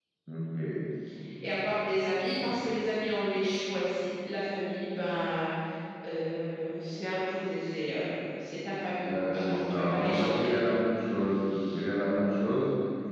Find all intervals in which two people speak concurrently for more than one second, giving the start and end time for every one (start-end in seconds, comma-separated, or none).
9.1-10.5